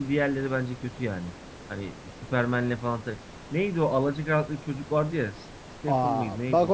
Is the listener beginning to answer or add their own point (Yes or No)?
Yes